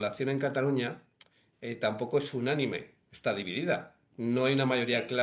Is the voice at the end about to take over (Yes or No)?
No